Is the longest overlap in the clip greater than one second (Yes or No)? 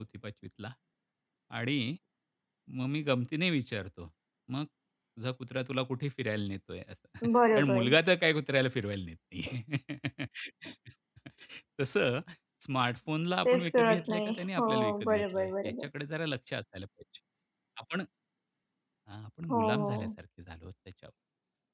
Yes